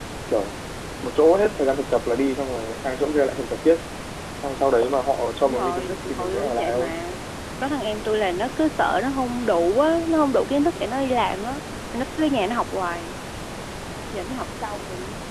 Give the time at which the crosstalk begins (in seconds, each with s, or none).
5.5 s